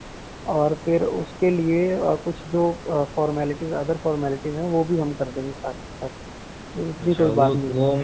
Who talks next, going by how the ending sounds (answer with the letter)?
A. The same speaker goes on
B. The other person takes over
B